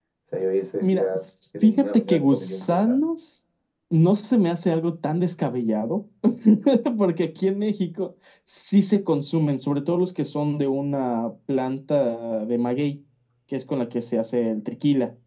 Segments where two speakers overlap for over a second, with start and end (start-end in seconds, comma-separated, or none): 1.6-3.0